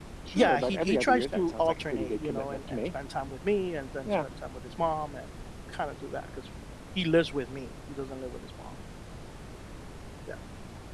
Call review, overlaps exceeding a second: present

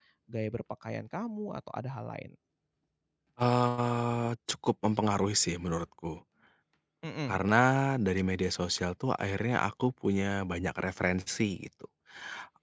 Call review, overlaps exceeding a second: none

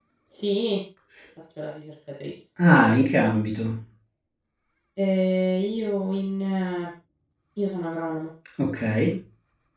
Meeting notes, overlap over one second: none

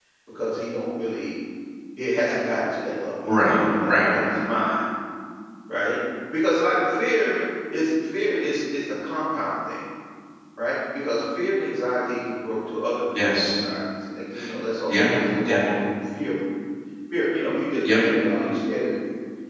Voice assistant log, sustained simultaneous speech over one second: none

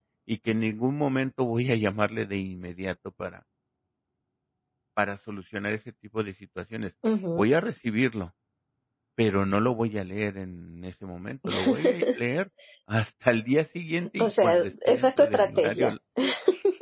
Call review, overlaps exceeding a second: present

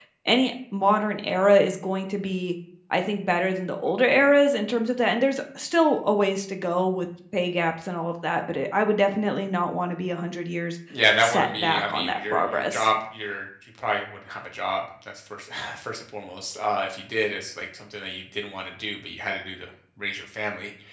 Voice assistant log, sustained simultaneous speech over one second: present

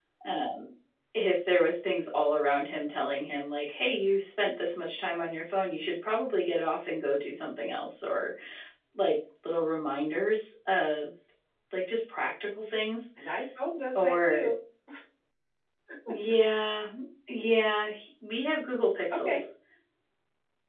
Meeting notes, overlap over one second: none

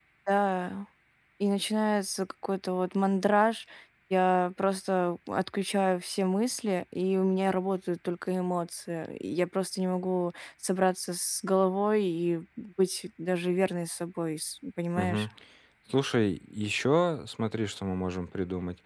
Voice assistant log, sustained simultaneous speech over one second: none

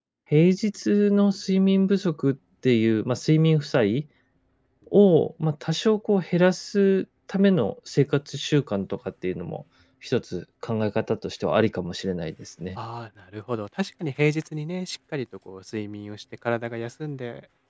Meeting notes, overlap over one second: none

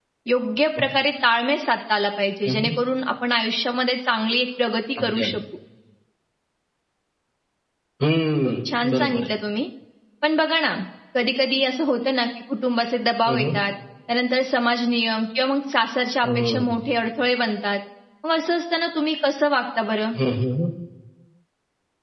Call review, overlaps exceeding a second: none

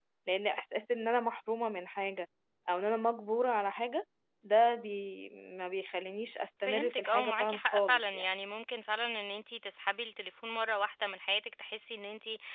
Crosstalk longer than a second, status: present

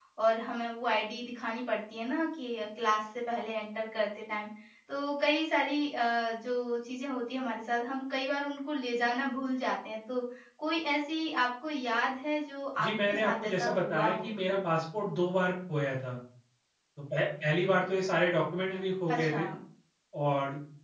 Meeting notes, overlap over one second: present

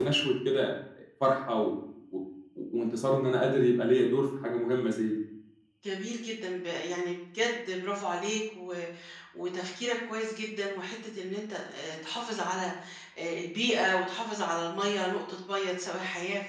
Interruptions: none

